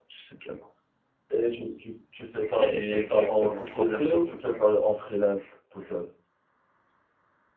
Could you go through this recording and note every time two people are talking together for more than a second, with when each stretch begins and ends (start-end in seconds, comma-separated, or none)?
2.5-4.4